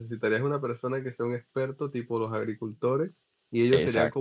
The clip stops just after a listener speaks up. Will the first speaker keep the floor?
Yes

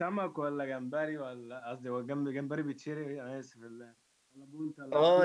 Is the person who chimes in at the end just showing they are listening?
No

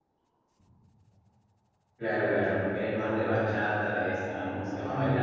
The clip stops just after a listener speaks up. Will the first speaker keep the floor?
No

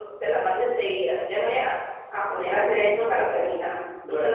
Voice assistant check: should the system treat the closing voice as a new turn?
Yes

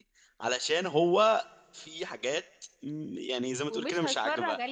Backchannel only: No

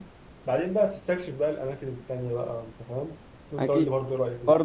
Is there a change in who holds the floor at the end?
Yes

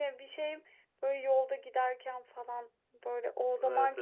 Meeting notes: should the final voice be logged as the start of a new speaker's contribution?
No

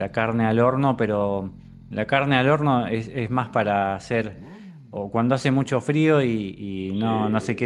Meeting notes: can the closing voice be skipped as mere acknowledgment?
Yes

